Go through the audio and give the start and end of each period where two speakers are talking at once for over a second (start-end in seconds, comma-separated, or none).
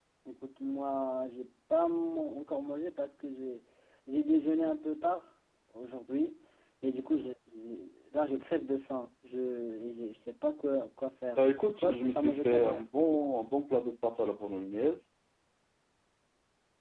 11.4-12.9